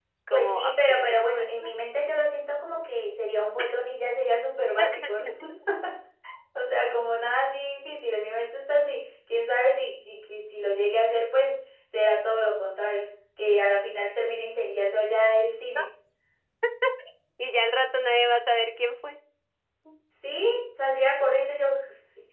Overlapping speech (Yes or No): Yes